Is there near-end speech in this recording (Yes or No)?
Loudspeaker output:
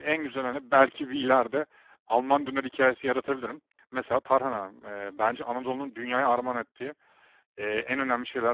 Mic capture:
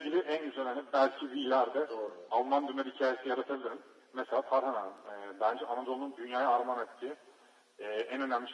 Yes